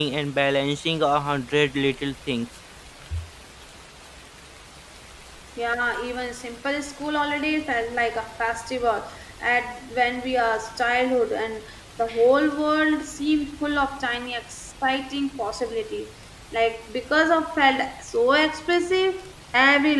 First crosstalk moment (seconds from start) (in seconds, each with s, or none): none